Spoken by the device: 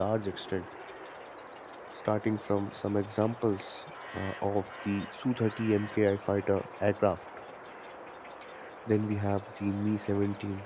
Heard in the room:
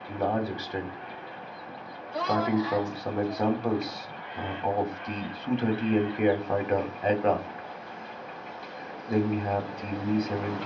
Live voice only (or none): Go on, add something.